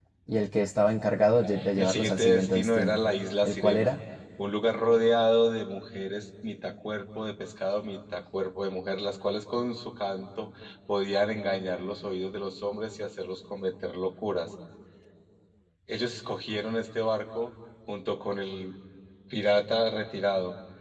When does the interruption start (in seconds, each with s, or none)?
1.6 s